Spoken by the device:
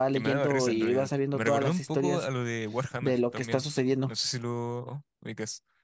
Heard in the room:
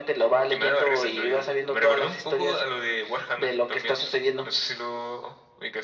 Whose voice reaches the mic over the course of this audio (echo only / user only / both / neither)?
echo only